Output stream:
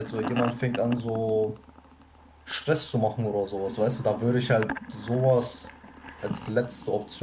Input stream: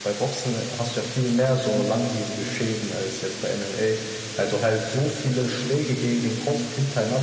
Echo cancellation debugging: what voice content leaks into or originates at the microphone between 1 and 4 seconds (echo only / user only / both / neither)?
user only